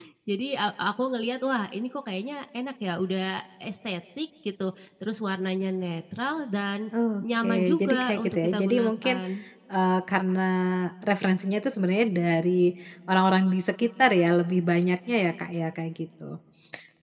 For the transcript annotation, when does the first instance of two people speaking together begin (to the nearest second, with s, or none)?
7 s